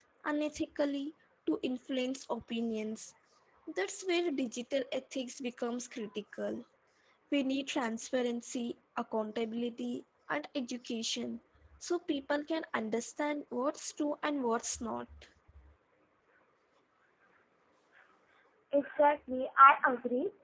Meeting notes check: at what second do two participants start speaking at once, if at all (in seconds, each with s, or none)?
none